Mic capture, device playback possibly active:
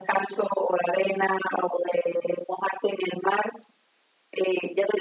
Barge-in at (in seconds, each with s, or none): none